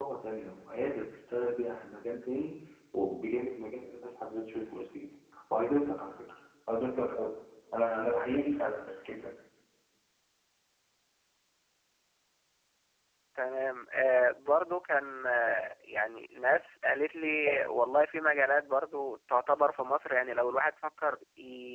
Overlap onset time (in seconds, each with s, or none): none